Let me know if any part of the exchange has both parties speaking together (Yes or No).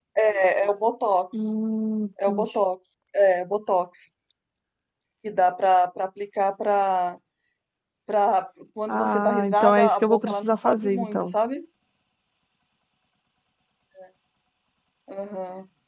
Yes